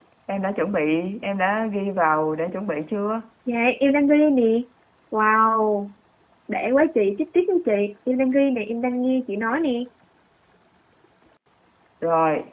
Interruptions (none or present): none